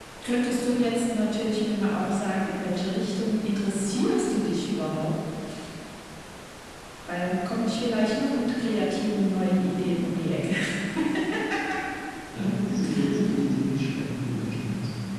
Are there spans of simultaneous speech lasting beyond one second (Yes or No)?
No